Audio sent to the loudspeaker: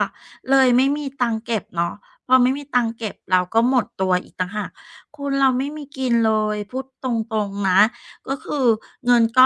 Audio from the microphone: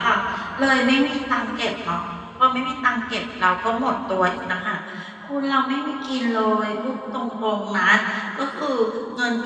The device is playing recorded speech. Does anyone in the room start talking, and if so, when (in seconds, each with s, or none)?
none